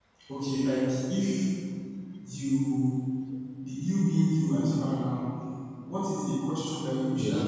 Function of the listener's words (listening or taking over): listening